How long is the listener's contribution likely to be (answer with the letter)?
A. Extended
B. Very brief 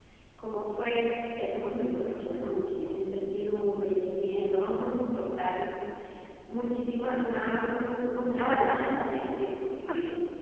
A